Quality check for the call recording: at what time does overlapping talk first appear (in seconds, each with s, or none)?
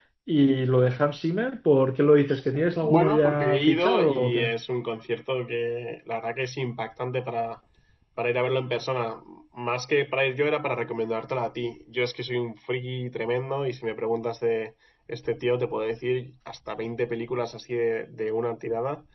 2.8 s